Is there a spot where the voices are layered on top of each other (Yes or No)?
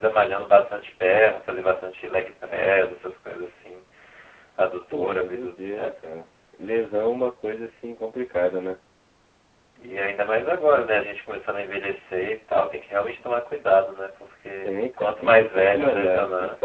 Yes